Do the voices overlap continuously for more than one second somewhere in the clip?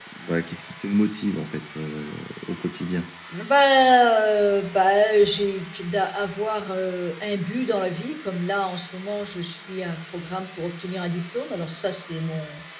No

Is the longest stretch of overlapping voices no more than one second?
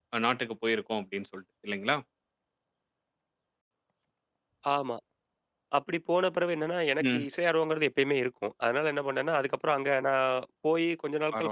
Yes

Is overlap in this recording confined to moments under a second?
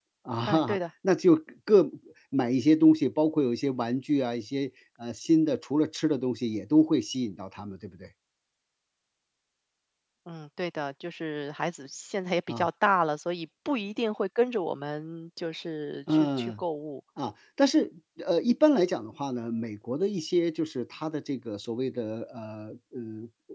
Yes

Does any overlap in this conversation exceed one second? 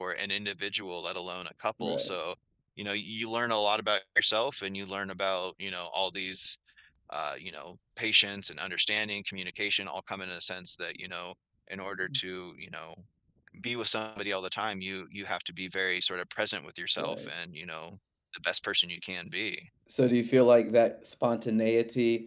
No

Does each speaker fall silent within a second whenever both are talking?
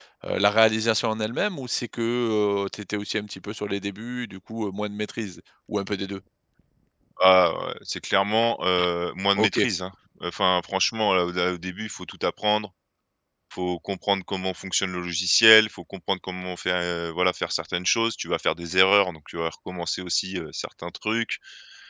Yes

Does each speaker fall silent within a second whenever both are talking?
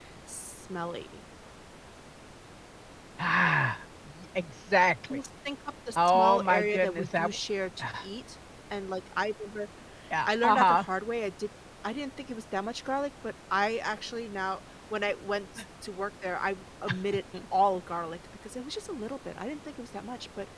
No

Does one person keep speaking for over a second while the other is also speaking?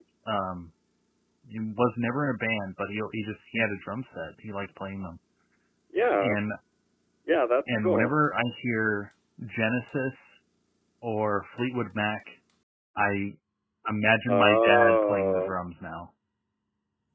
Yes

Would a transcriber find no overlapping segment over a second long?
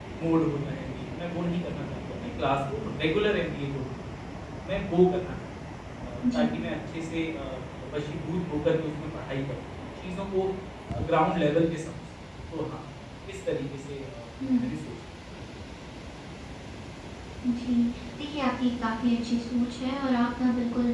Yes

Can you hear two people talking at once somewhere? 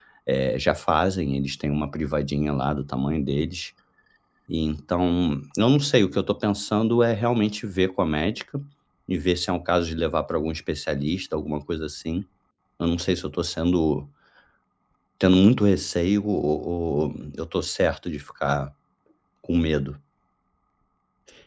No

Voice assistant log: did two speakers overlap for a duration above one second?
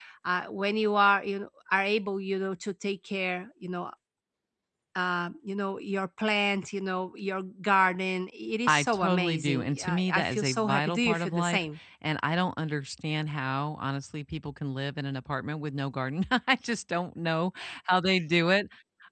Yes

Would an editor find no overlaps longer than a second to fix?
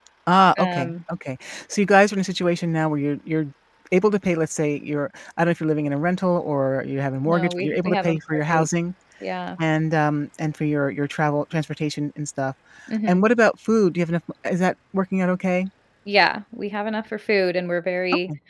No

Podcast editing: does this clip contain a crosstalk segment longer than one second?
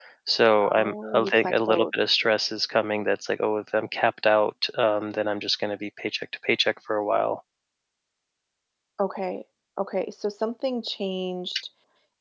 Yes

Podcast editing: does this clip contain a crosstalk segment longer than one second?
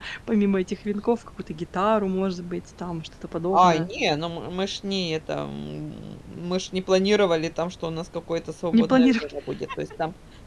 No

